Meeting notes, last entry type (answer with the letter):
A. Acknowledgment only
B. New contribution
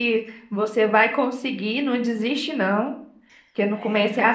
A